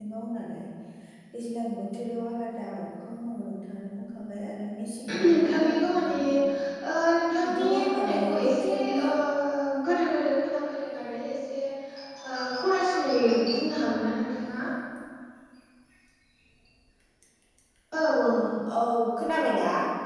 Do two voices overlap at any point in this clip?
Yes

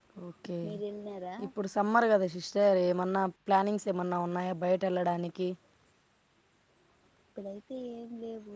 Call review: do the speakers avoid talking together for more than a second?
Yes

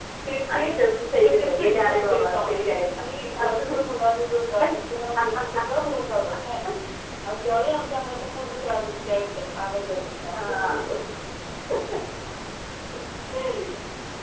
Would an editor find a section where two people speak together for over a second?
Yes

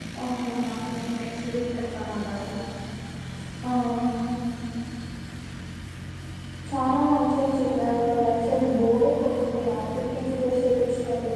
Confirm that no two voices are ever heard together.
Yes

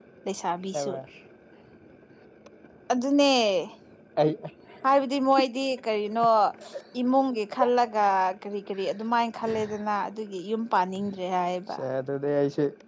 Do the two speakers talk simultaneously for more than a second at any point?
No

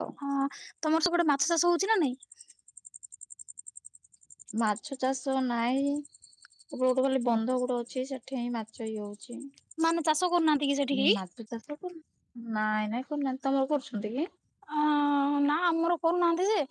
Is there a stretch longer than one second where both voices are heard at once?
No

